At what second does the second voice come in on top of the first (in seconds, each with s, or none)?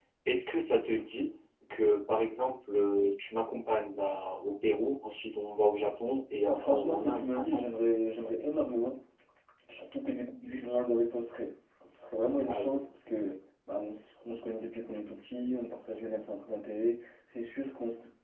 6.4 s